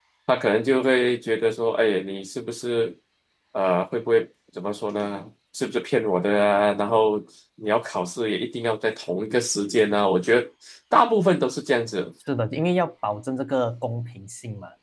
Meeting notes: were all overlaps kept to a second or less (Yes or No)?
Yes